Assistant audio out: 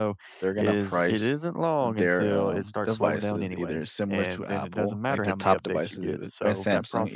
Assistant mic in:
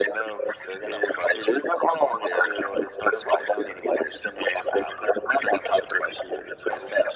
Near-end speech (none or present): none